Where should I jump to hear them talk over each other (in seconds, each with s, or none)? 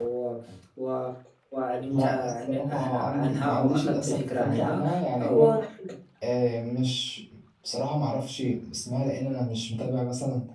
1.9 s